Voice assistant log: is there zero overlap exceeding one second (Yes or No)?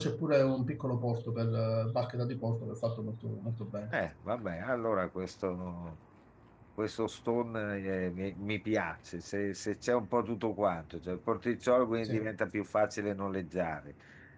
Yes